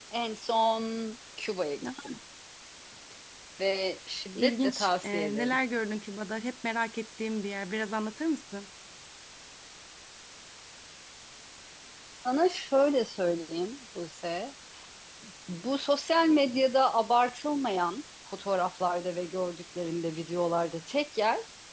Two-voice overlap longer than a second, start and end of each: 4.3-5.6

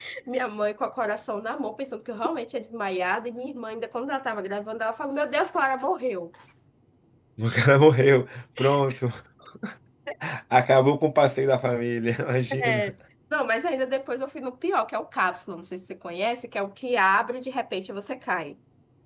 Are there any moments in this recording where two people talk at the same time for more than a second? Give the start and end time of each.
none

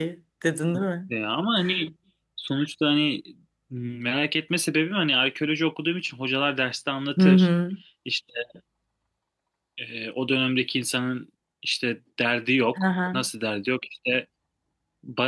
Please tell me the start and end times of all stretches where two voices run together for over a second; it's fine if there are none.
none

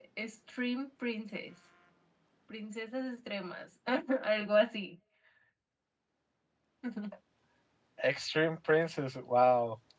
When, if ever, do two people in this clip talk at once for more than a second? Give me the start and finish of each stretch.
none

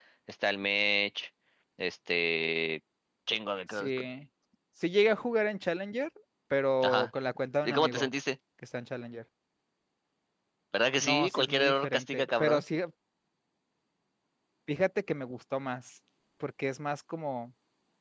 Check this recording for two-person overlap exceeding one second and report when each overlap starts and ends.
11.0-12.6

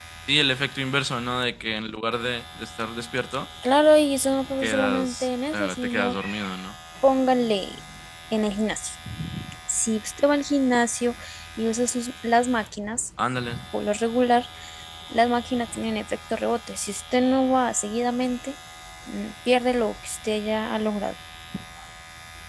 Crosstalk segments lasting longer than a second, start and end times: 4.6-6.2

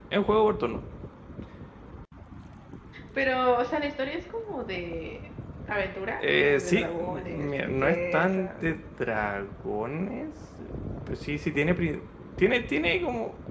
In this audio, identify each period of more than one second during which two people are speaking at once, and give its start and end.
6.2-8.5

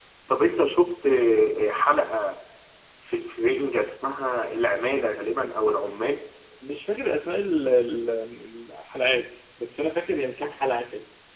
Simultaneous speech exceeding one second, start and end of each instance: none

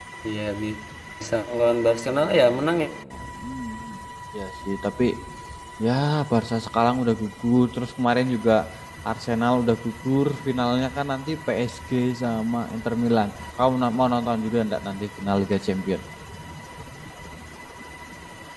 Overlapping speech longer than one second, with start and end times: 1.5-2.9

